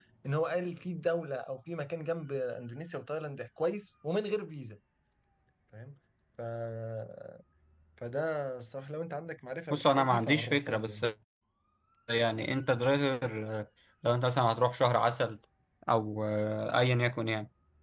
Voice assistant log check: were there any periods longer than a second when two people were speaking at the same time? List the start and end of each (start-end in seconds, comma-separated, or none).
9.7-11.0